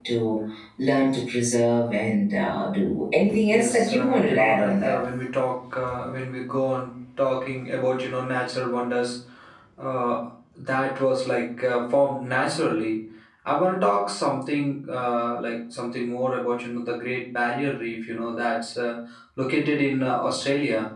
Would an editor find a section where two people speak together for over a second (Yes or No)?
Yes